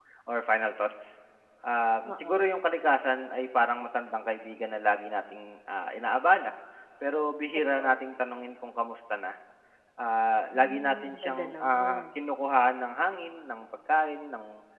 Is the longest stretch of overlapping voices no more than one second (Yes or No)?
No